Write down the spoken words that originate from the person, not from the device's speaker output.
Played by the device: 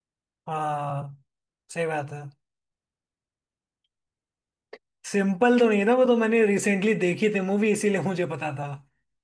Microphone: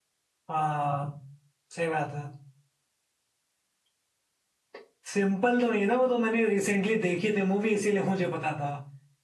none

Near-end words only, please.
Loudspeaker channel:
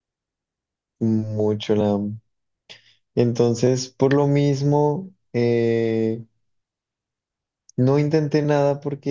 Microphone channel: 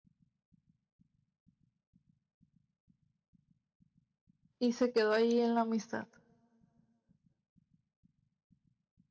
Y se quedó ahí en la amistad.

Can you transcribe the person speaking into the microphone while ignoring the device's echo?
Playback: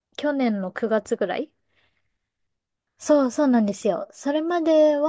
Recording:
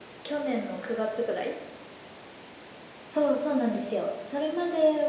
none

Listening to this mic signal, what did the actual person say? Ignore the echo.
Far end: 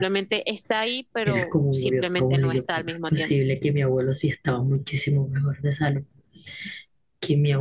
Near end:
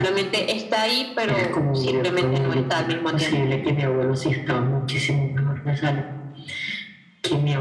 none

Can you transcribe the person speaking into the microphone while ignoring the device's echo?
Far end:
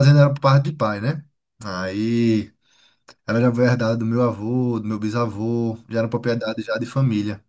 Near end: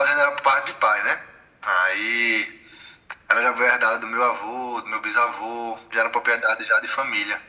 none

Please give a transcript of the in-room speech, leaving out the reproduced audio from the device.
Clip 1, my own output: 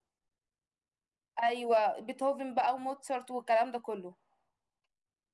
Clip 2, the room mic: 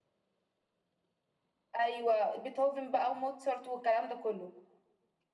none

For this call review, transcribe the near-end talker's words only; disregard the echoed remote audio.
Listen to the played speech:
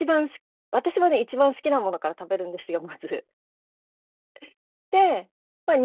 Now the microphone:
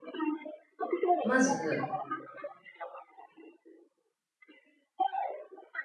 まず、

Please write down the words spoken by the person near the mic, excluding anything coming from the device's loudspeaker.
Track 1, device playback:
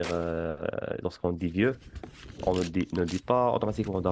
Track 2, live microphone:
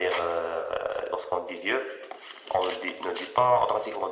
none

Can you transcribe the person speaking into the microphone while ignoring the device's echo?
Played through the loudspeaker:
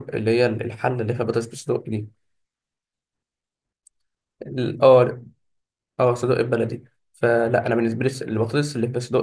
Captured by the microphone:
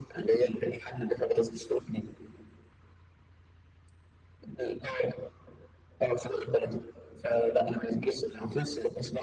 none

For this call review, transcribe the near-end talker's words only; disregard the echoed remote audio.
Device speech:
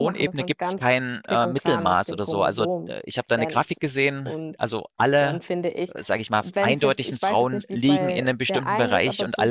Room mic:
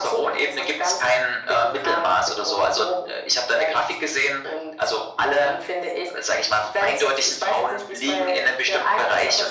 none

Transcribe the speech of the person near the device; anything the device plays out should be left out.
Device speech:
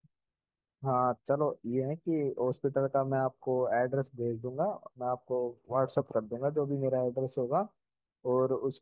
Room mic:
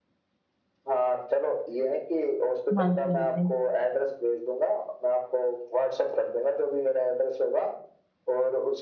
हाँ जी हाँ जी

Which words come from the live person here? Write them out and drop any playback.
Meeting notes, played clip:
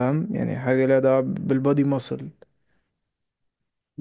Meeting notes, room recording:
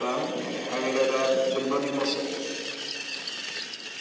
none

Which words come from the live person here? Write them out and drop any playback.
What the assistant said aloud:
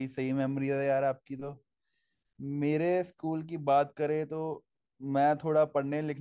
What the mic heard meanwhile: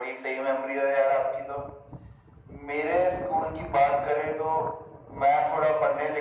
none

